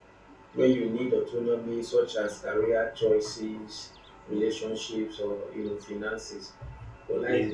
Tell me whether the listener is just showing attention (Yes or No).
Yes